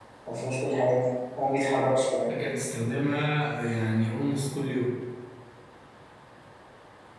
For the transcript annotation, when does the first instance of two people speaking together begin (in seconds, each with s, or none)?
none